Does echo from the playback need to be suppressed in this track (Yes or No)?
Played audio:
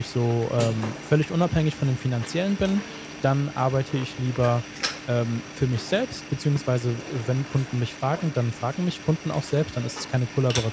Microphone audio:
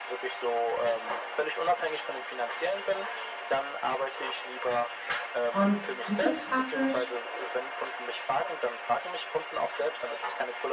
Yes